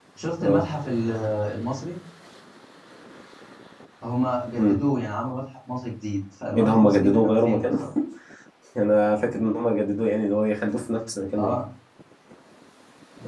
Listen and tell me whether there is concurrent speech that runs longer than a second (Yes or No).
Yes